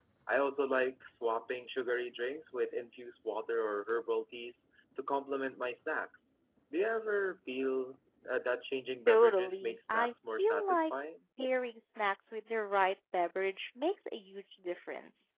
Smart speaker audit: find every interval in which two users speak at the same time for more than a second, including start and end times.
9.1-10.9

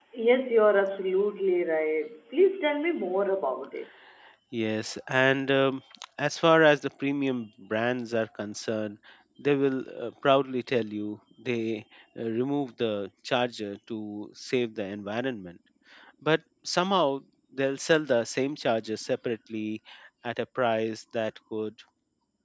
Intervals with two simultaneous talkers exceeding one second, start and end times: none

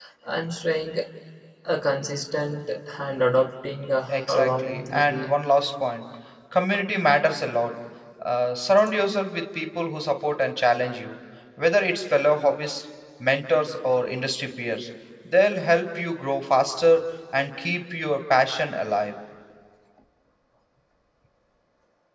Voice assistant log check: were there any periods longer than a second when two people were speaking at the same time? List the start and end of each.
4.1-5.3

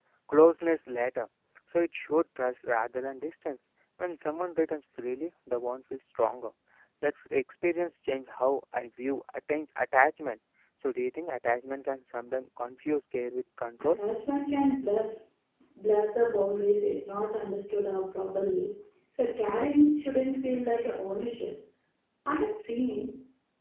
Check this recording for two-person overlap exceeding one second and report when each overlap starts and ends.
none

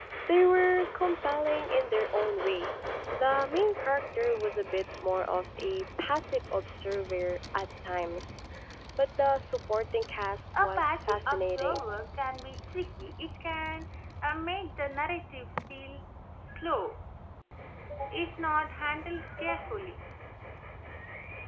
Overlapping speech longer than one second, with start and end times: 10.6-11.8

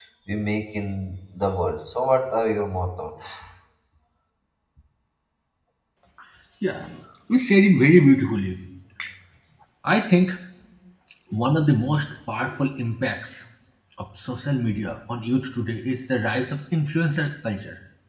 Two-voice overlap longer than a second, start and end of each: none

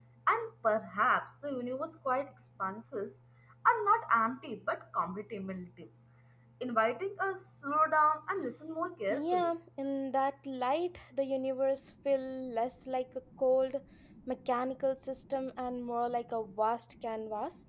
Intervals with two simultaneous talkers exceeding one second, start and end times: none

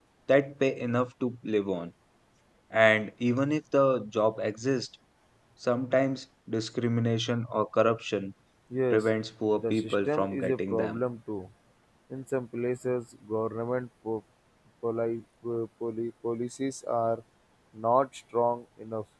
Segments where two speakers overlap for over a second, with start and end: 9.6-11.0

